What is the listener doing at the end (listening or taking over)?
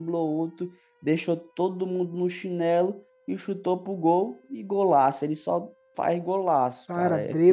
taking over